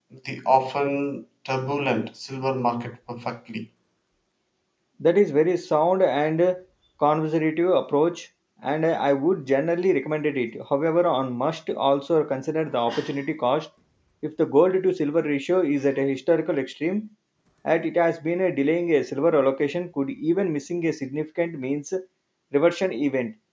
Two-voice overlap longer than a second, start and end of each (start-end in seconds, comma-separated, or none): none